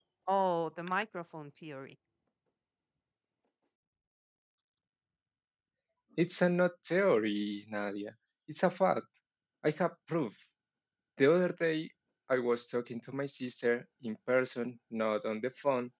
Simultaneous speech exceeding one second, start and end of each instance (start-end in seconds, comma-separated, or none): none